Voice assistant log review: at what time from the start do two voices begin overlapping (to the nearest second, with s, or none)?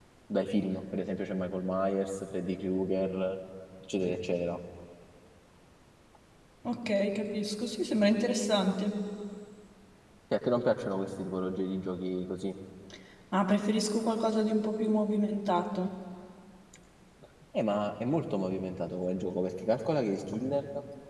none